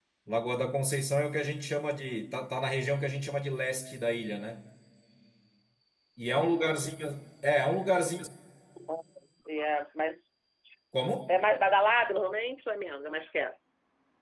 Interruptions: none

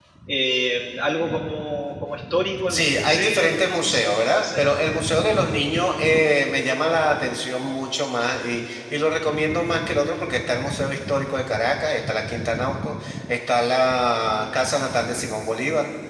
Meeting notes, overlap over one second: present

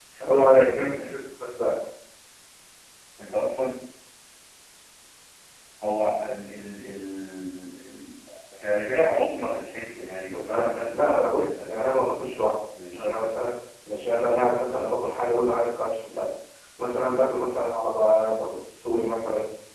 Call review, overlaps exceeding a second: present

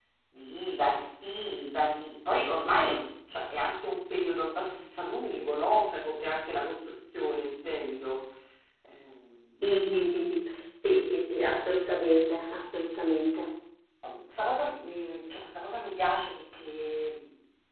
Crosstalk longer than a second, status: none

